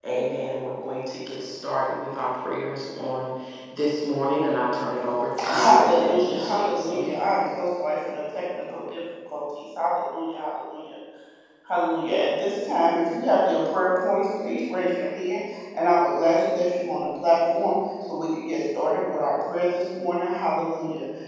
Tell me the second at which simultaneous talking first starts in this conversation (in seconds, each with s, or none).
5.4 s